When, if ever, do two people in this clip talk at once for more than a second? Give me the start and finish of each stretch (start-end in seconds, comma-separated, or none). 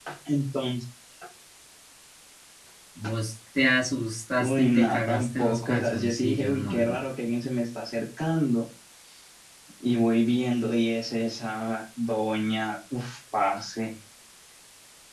4.4-7.0